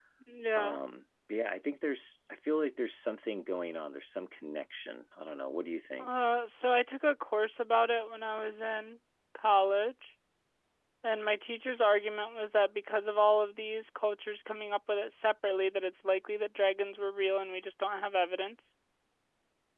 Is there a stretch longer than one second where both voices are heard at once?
No

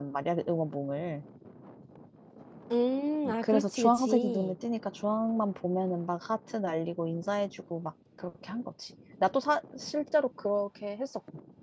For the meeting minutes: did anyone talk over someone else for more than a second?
Yes, from 3.2 s

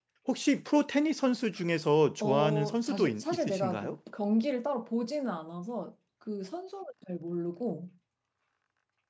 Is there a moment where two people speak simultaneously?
Yes, from 2.2 s

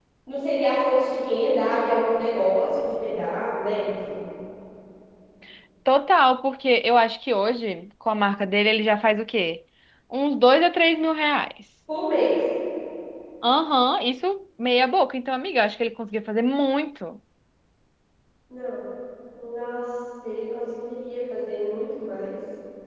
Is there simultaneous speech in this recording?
No

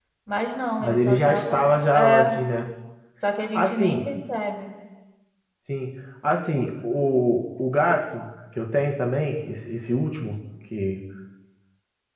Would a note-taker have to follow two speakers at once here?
Yes, from 0.8 s

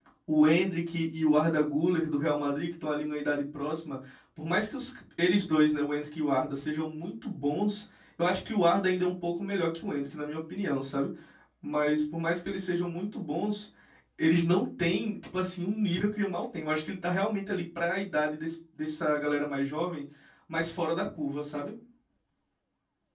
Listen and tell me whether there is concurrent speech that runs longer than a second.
No

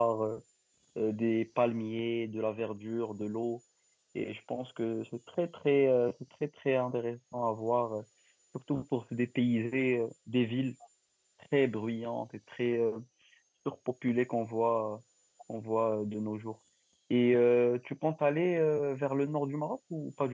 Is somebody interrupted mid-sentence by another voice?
No

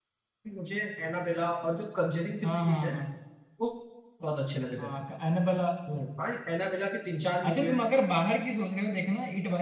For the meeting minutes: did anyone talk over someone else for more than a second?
No

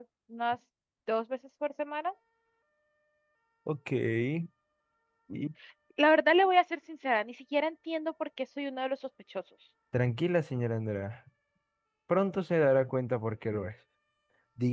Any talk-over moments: No

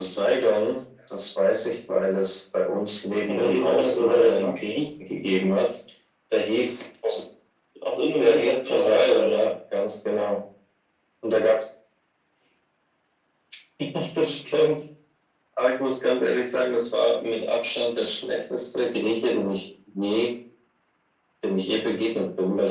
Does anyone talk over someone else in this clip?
Yes, from 3.3 s

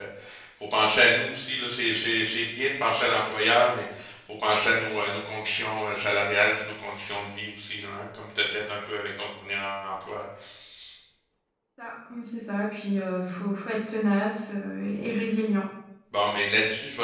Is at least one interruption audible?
No

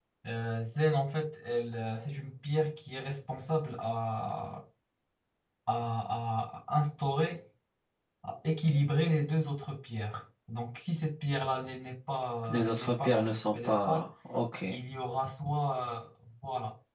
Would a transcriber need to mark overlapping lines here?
Yes, from 12.4 s

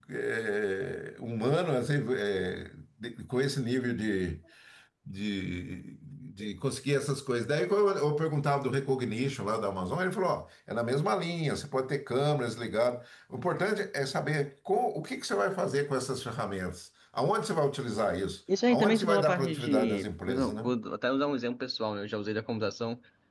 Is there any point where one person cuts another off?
Yes, from 18.5 s

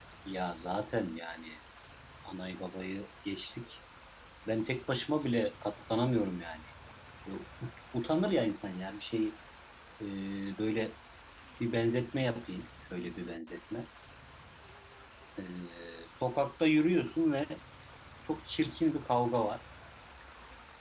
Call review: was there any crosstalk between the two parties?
No

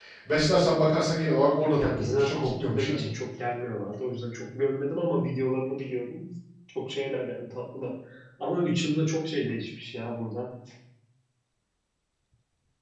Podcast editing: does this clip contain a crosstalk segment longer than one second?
Yes, from 1.8 s

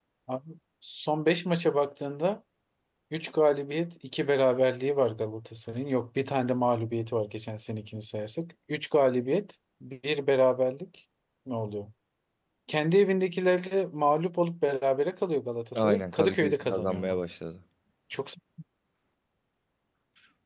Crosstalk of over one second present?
Yes, from 15.8 s

